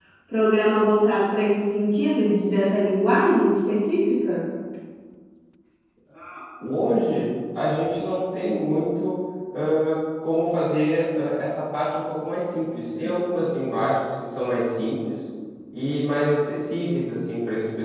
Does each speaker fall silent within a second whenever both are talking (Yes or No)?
Yes